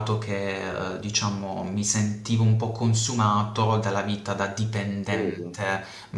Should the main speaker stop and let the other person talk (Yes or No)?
No